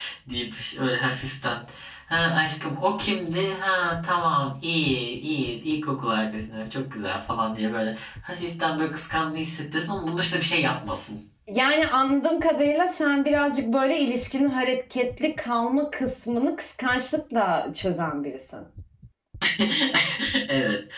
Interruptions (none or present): none